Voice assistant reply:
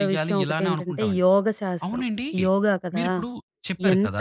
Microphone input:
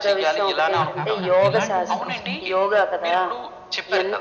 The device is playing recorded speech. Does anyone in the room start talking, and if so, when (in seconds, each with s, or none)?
0.8 s